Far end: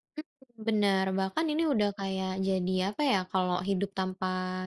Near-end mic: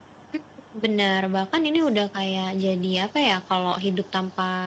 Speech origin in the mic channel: echo only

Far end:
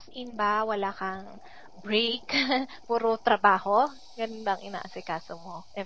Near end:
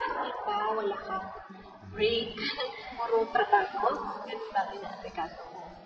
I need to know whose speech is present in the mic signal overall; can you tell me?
both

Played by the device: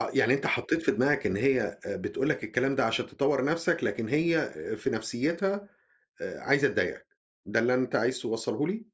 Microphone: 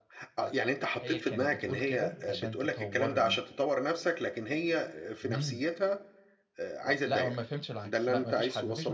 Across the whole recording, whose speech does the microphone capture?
both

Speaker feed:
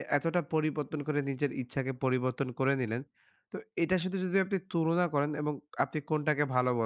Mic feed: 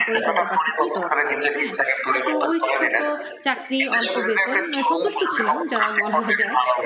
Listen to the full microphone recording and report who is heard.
both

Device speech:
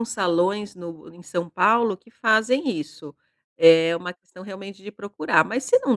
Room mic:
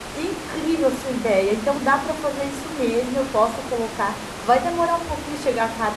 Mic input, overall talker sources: user only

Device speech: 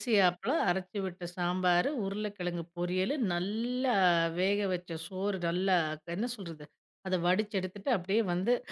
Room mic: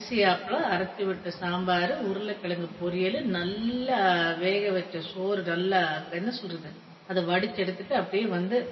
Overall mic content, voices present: echo only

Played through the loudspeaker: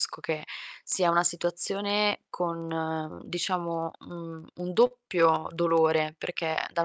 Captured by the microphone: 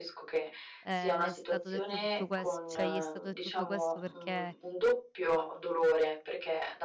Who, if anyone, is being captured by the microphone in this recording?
both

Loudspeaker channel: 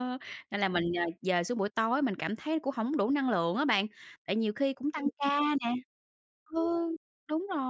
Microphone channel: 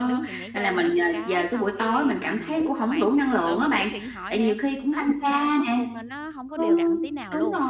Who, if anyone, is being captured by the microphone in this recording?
both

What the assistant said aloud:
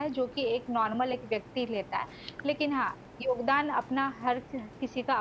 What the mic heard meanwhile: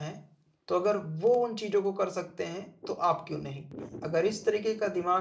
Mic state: user only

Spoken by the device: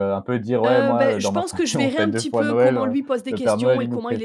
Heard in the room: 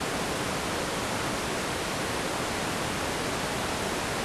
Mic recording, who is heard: neither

